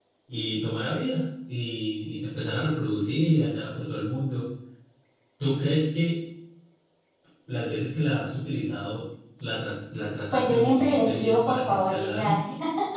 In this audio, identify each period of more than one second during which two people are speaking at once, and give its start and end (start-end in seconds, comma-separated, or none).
10.3-12.4